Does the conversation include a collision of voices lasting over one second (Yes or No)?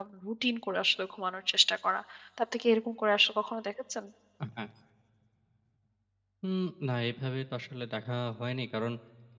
No